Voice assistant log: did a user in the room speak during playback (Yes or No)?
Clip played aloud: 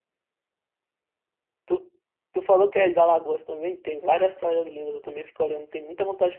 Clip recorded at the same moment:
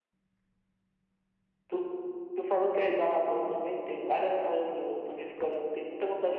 No